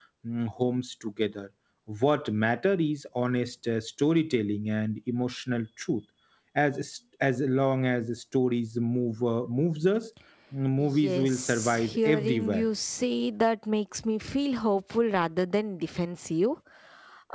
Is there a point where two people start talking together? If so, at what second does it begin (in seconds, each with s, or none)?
10.8 s